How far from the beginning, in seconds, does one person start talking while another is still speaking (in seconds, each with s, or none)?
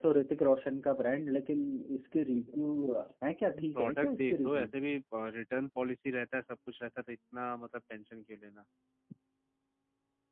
3.5 s